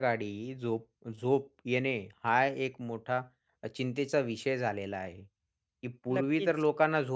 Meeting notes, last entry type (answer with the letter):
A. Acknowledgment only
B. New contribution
A